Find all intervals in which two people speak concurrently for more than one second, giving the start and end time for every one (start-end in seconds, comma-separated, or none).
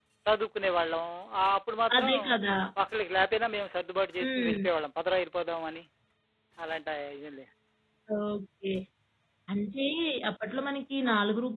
none